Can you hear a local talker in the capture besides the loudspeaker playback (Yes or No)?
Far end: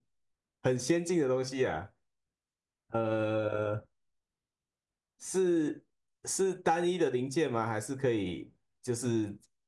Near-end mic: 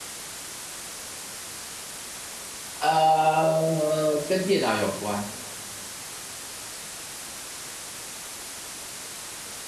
Yes